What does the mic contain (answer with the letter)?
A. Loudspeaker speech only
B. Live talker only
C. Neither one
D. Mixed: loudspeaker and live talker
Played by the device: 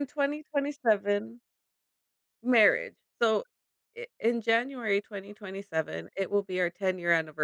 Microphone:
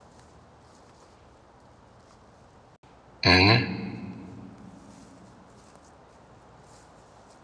B